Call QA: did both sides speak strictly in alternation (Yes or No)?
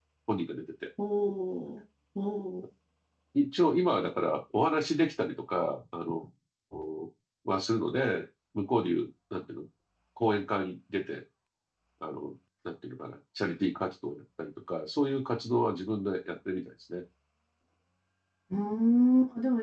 Yes